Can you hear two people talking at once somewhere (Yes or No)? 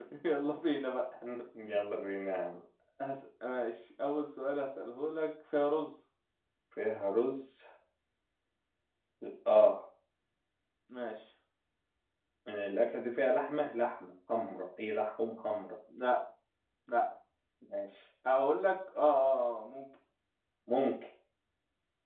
No